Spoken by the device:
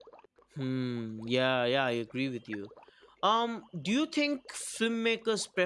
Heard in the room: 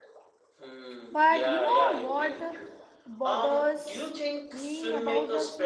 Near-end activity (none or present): present